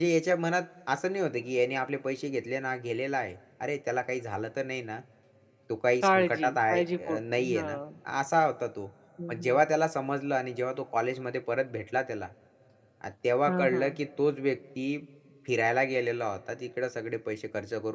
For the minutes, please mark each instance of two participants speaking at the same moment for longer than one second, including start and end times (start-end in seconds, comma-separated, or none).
6.0-7.8